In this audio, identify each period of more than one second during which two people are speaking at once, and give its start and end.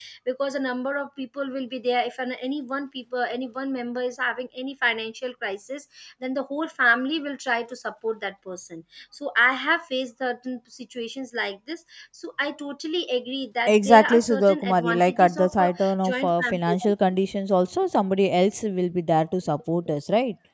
13.7-16.9

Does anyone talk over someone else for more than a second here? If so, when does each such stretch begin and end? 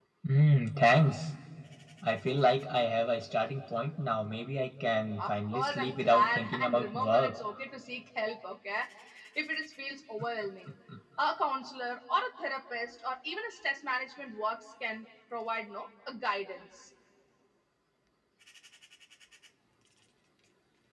5.2-7.4

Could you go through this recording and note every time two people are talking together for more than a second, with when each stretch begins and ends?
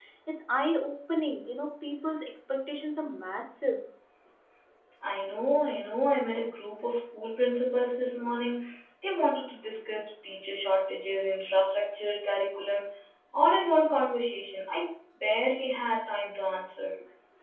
none

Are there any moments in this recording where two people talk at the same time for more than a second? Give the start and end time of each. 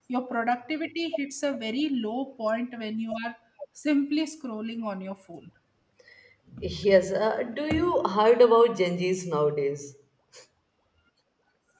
none

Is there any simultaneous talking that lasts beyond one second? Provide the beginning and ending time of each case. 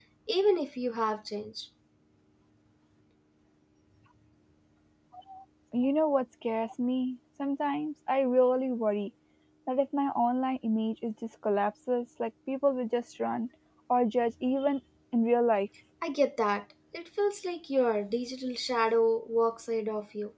none

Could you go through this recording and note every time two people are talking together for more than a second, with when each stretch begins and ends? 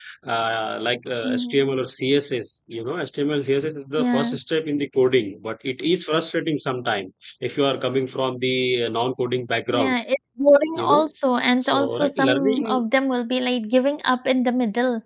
11.6-12.8

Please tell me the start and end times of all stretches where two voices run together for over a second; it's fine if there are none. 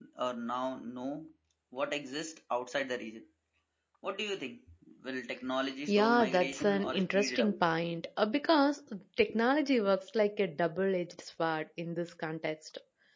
5.9-7.6

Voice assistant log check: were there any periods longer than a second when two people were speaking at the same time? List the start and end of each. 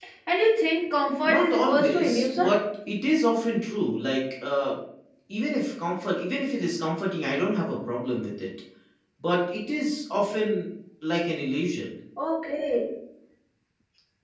1.2-2.6

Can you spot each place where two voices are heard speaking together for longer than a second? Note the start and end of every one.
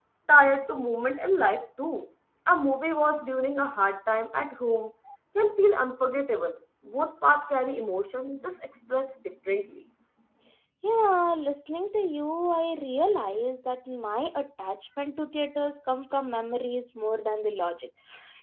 none

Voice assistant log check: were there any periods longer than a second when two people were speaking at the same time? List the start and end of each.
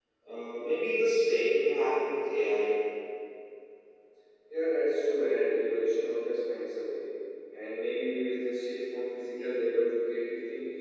none

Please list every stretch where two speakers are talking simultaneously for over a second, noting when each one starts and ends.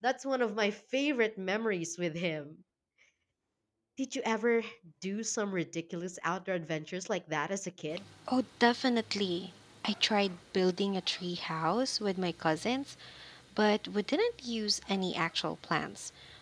none

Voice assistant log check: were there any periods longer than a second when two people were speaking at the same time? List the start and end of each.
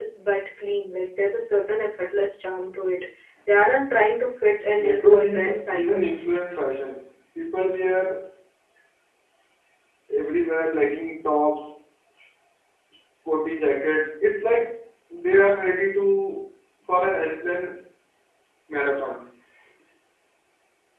4.8-6.1

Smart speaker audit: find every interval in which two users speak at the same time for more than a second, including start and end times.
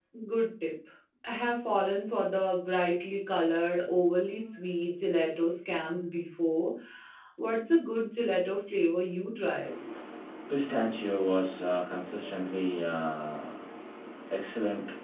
none

